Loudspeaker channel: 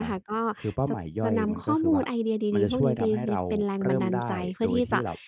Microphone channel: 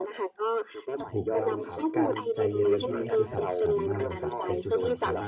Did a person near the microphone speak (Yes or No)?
Yes